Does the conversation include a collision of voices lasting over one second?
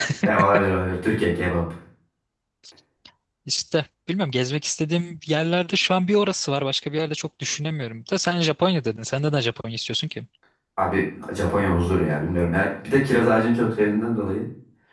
No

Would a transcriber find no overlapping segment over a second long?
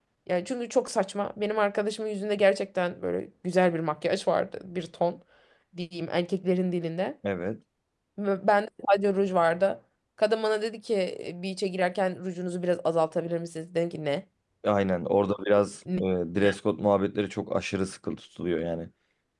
Yes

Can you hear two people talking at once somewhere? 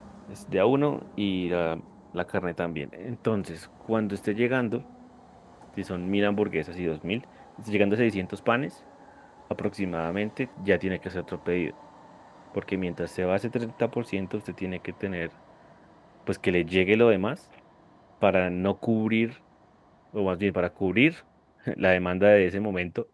No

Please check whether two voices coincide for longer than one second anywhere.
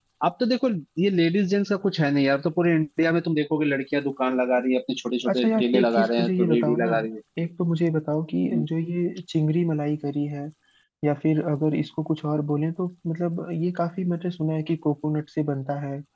Yes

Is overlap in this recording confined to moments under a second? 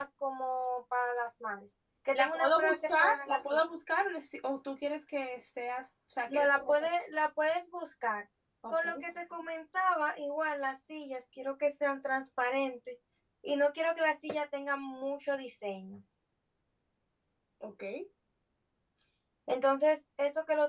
No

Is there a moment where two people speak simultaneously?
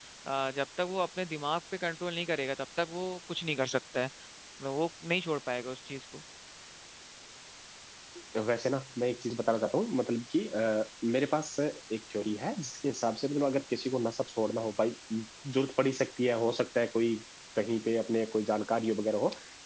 No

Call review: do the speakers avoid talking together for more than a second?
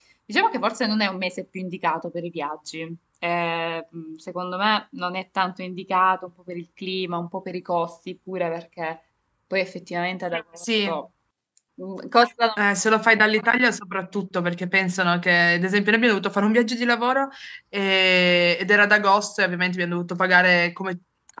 Yes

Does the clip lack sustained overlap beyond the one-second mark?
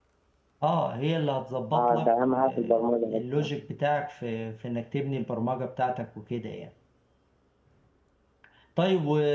No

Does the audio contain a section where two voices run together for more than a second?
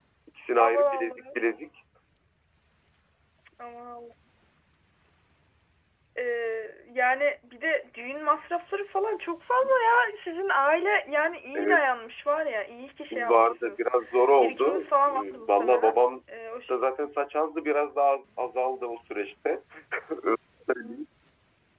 Yes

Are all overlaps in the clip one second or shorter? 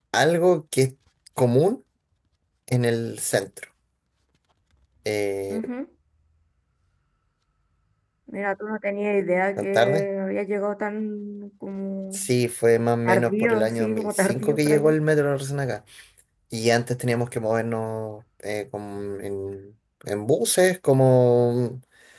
No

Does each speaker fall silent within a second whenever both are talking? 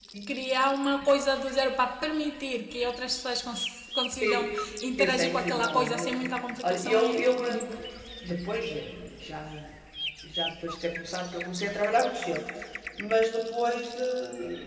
No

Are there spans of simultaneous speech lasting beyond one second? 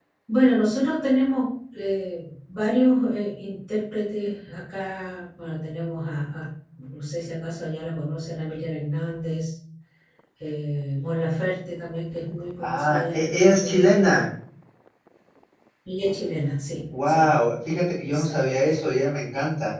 Yes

